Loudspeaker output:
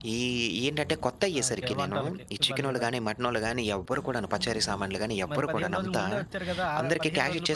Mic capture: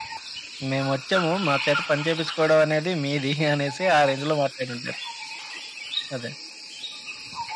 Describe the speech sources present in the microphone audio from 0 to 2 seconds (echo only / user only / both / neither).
user only